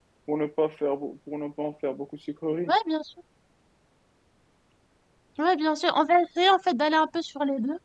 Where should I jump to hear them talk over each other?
none

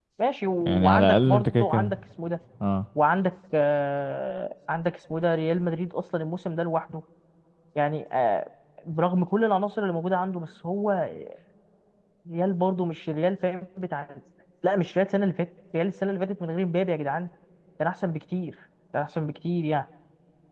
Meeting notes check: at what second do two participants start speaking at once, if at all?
0.6 s

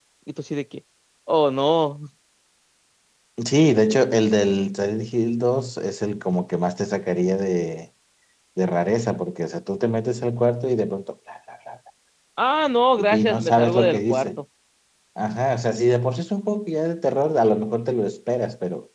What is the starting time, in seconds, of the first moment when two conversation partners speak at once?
13.0 s

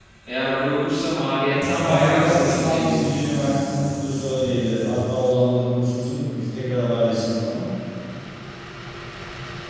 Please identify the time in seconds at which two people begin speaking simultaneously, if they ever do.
1.9 s

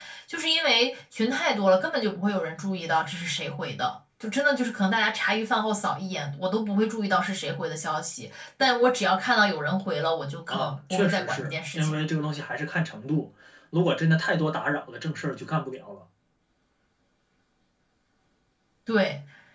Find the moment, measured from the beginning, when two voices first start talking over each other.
10.5 s

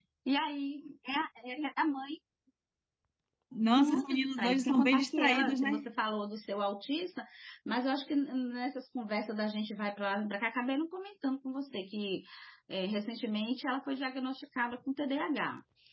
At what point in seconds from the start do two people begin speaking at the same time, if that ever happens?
3.8 s

